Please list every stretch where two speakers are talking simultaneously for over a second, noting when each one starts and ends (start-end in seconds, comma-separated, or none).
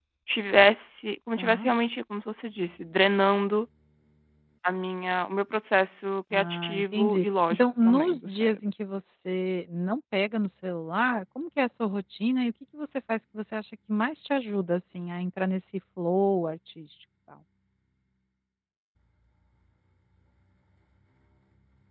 6.3-8.7